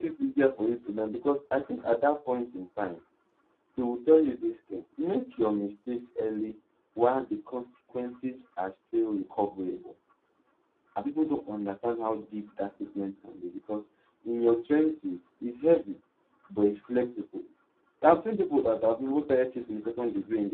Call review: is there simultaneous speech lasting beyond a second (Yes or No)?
No